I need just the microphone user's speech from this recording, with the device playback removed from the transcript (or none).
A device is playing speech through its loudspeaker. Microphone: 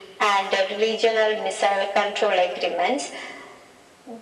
none